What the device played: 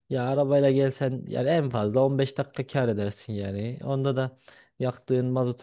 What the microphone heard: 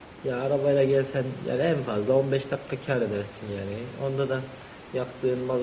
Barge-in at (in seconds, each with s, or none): none